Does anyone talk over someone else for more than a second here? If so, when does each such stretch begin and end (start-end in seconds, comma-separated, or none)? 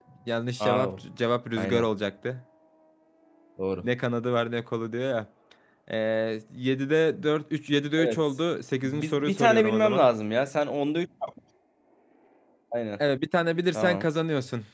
8.8-10.0